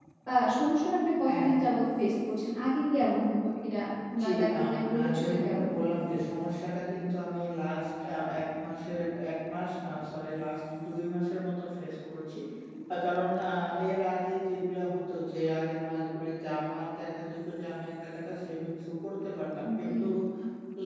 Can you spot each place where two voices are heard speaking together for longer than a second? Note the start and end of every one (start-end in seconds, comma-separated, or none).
4.2-5.8